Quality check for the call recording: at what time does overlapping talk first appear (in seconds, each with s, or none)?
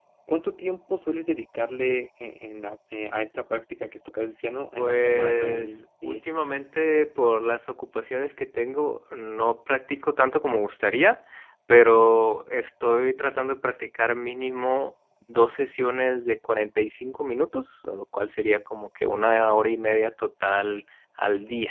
4.8 s